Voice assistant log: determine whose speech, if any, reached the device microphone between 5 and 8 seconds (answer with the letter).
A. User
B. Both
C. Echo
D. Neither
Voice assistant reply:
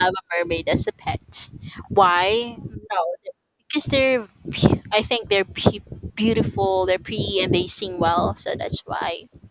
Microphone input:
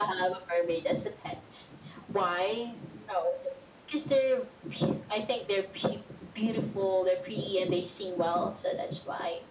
C